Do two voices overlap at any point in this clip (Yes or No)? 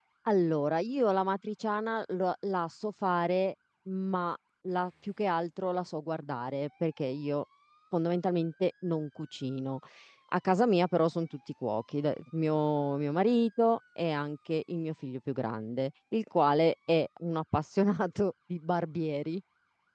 No